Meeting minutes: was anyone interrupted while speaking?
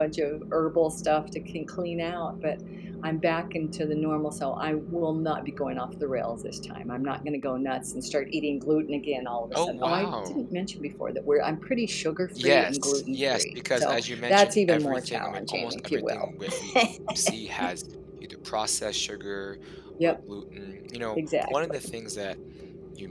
Yes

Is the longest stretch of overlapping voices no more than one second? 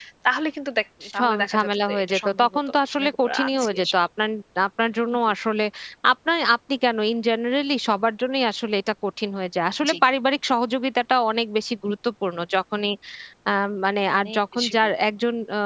No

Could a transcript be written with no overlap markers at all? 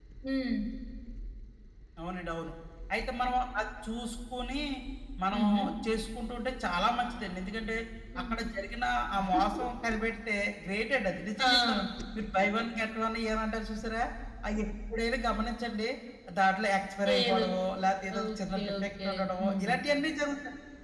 No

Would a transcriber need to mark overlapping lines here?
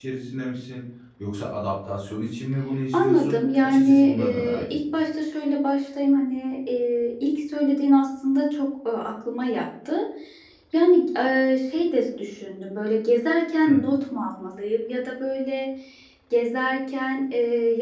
Yes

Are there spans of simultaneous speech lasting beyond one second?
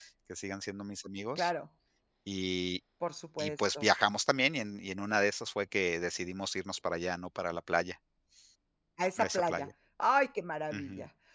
No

